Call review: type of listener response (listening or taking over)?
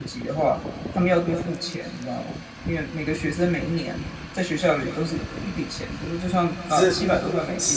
taking over